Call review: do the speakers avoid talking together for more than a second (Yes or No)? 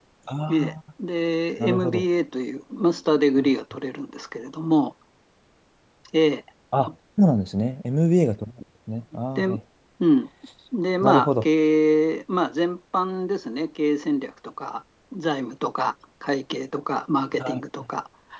Yes